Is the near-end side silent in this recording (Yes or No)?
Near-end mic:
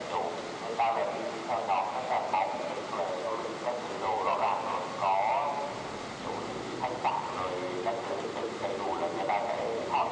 Yes